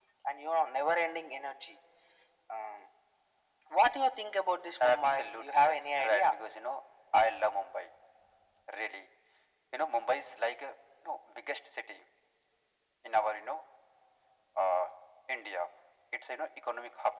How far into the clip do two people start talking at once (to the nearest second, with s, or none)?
5 s